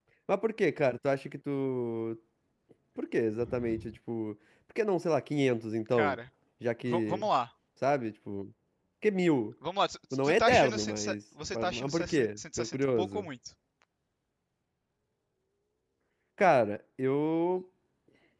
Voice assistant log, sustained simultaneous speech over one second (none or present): present